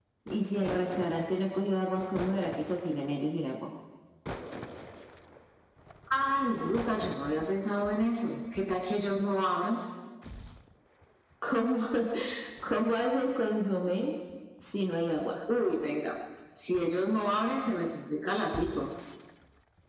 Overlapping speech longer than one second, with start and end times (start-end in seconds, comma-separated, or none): none